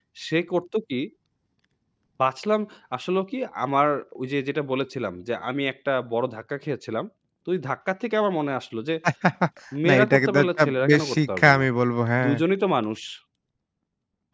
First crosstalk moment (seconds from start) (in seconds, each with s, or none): 9.9 s